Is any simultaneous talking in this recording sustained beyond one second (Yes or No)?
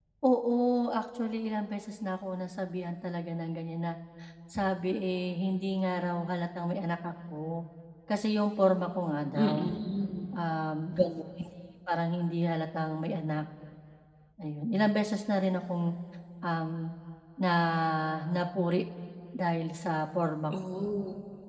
No